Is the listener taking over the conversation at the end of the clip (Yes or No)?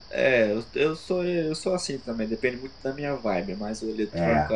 No